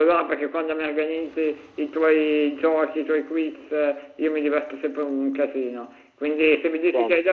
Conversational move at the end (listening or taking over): listening